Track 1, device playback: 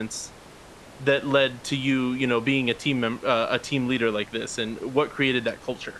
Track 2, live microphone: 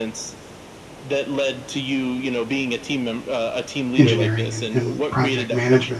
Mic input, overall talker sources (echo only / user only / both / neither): both